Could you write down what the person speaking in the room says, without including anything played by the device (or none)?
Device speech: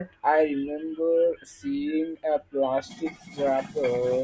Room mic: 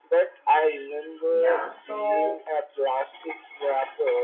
yeah so